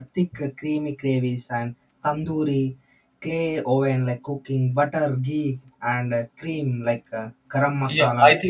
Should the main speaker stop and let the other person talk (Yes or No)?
Yes